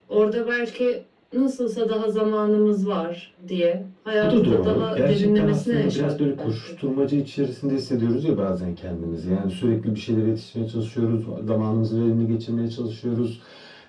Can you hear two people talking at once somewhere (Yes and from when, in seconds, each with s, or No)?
Yes, from 4.2 s